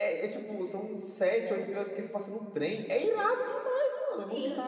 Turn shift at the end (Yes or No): Yes